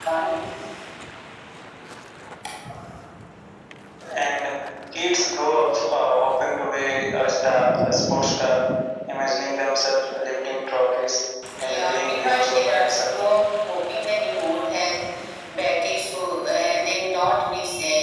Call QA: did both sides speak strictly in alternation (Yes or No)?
No